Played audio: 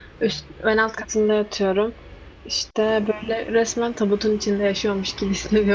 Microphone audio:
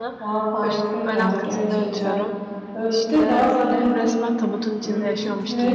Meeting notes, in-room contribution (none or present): present